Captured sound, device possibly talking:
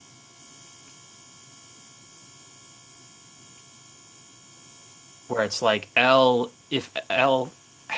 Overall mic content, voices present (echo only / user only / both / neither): user only